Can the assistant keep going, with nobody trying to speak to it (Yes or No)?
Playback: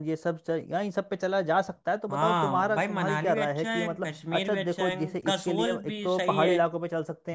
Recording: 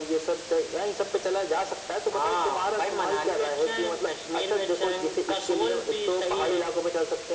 Yes